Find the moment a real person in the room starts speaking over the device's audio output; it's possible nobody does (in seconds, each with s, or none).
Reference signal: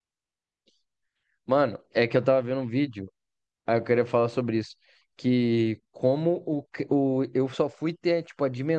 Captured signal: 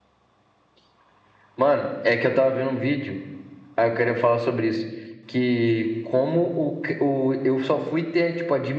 none